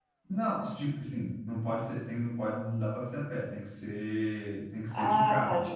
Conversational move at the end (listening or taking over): taking over